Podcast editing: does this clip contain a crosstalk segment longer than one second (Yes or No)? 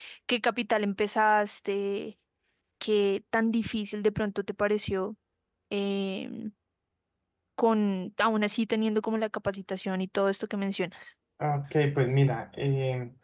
No